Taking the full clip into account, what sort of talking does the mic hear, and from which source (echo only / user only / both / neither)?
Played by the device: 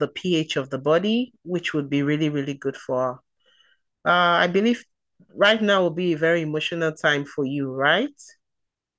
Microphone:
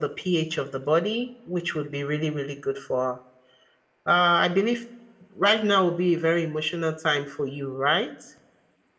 echo only